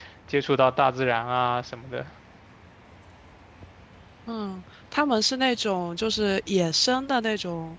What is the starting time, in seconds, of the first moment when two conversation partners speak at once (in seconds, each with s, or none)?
none